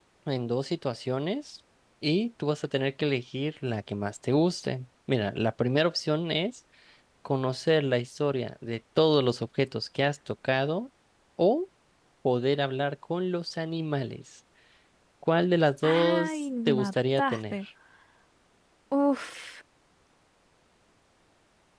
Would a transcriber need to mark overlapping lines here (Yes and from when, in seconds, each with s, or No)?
Yes, from 15.8 s